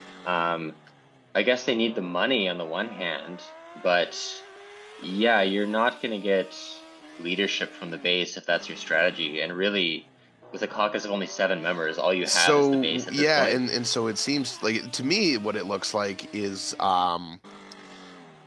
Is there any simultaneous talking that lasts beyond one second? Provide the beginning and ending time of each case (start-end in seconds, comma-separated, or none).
12.2-13.6